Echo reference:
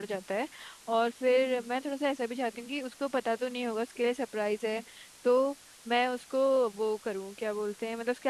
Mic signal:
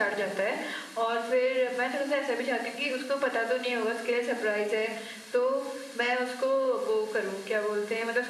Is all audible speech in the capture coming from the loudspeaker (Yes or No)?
Yes